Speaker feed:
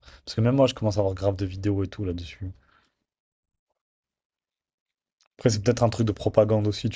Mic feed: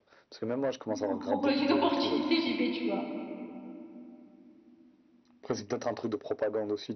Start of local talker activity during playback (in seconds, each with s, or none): 0.9 s